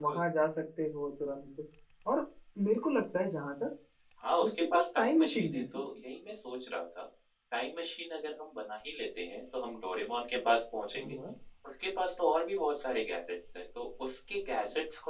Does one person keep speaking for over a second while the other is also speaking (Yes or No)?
Yes